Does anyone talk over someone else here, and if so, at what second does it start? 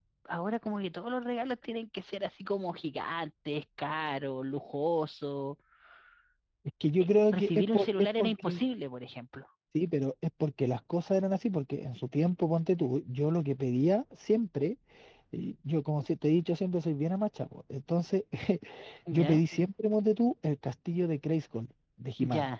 7 s

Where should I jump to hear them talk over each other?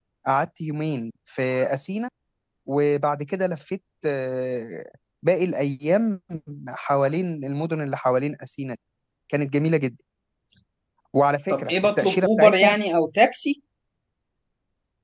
11 s

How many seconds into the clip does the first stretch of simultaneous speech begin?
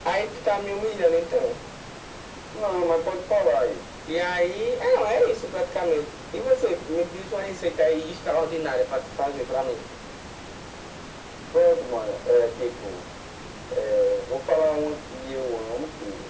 none

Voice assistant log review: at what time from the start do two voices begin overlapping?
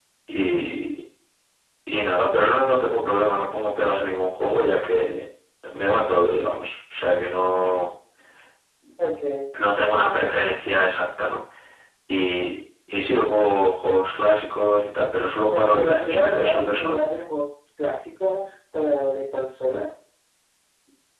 16 s

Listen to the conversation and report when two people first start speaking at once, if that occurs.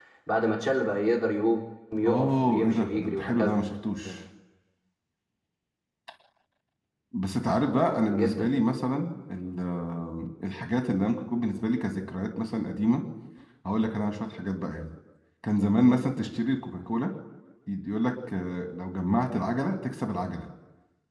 2 s

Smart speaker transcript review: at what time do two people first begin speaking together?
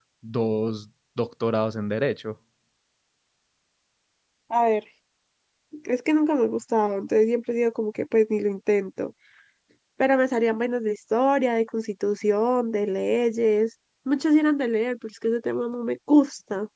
none

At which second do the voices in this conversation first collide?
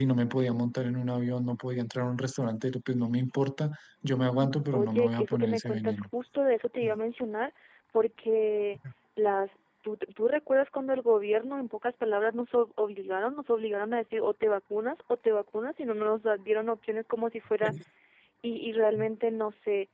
5 s

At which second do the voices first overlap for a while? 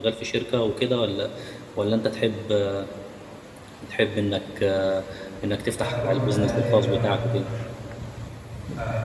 6 s

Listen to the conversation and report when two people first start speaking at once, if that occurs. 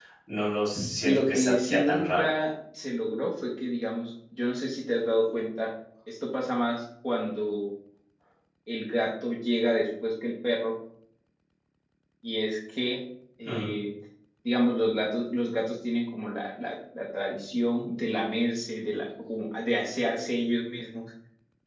1 s

